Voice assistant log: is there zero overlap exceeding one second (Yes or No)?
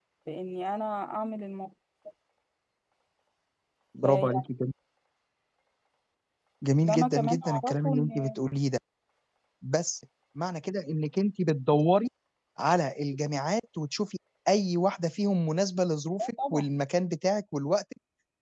No